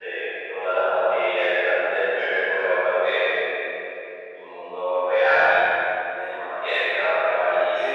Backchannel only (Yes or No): Yes